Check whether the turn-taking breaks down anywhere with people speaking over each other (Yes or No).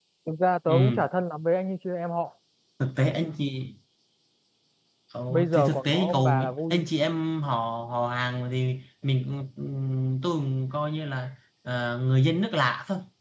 Yes